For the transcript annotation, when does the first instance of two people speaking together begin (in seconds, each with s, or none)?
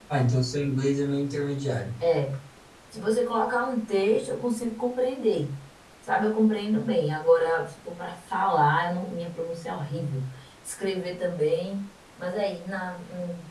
none